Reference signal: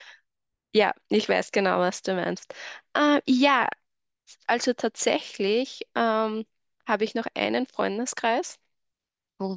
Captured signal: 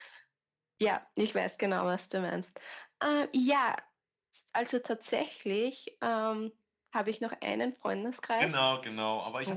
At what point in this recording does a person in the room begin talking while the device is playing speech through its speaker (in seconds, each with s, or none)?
8.3 s